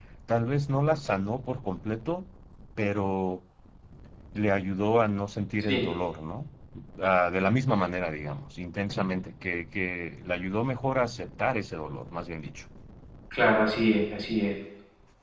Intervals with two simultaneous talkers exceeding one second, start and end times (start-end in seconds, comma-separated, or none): none